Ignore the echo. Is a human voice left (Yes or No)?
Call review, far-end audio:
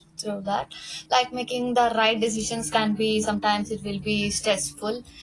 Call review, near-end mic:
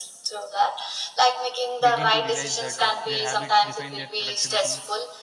Yes